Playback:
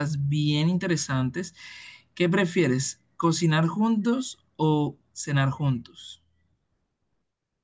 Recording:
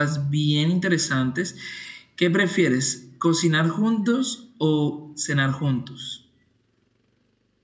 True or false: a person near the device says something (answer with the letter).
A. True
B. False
B